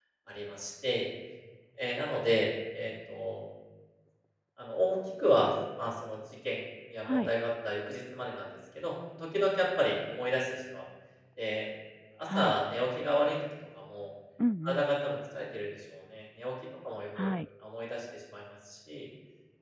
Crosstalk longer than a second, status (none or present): none